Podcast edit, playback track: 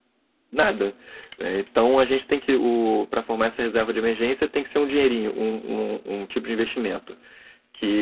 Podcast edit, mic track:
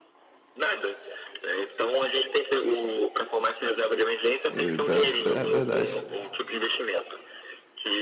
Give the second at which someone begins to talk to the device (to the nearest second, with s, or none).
4 s